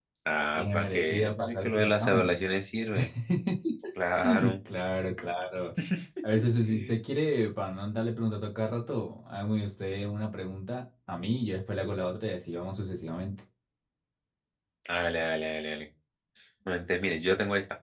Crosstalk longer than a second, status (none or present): present